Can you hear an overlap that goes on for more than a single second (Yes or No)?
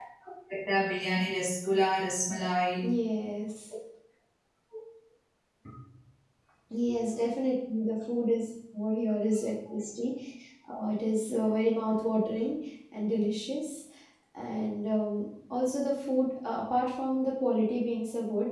No